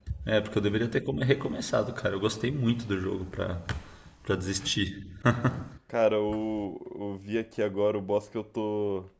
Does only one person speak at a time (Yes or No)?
Yes